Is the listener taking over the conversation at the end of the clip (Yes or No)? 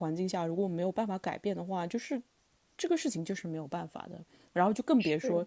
No